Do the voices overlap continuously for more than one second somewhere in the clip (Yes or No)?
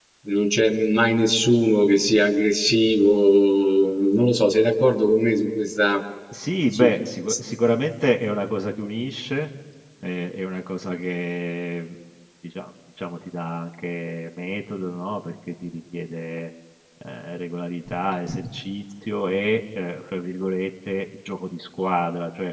No